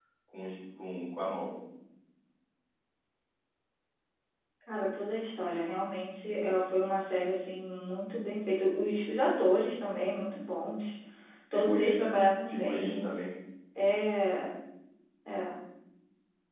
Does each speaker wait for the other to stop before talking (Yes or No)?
No